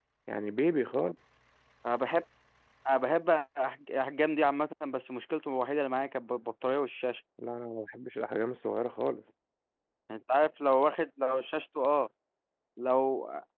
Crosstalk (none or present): none